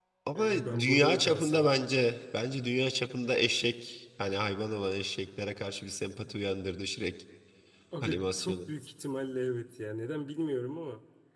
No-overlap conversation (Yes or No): No